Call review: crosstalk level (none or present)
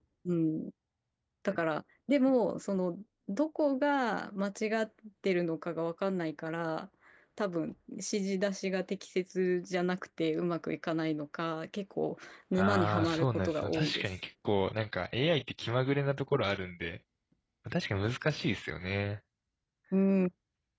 present